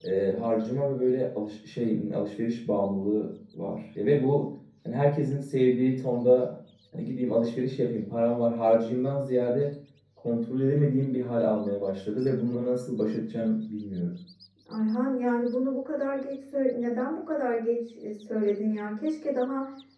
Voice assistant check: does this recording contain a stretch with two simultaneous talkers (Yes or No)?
No